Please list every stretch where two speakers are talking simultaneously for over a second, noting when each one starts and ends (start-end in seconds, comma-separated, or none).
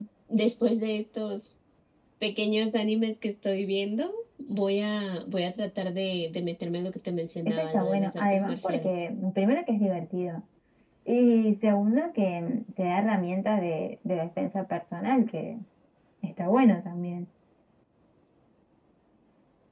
7.5-8.9